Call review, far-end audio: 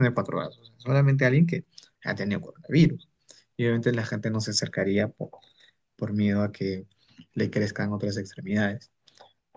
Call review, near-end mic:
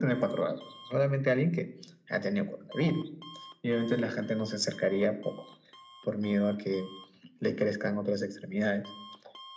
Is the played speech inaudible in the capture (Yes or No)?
No